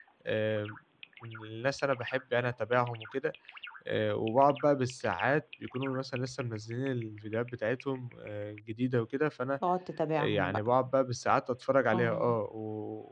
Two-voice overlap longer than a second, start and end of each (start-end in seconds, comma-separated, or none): none